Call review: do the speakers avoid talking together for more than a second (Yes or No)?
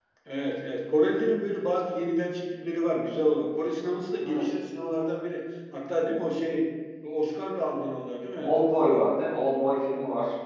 Yes